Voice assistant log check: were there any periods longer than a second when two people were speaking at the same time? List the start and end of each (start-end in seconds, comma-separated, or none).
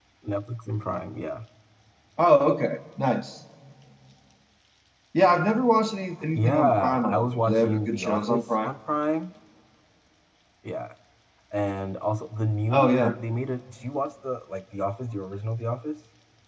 6.4-8.7